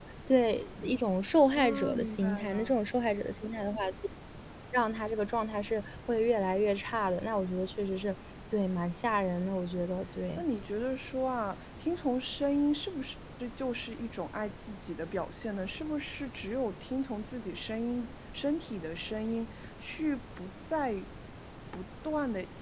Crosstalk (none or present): present